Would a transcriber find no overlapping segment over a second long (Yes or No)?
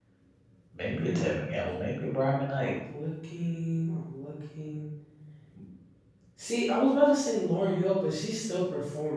Yes